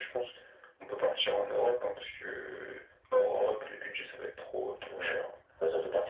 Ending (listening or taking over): taking over